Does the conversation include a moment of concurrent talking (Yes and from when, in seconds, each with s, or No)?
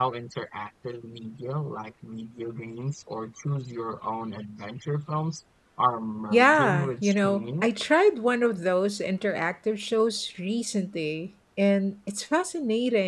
Yes, from 6.3 s